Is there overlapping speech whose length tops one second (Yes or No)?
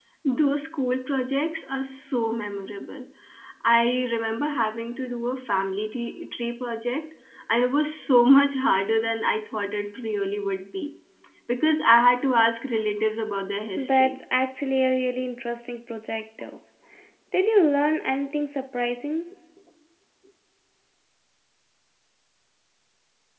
No